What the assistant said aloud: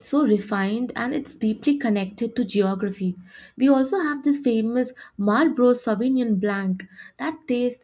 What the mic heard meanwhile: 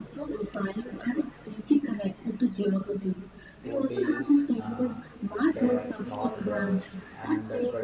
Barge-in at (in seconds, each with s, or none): 3.6 s